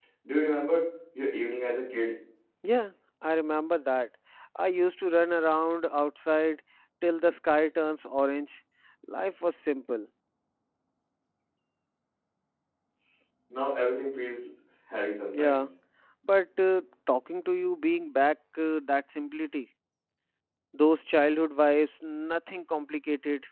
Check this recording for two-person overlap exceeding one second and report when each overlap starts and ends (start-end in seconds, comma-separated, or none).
none